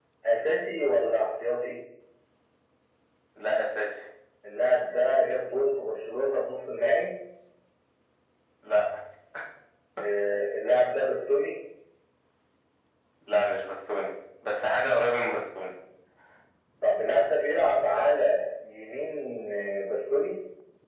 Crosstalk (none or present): none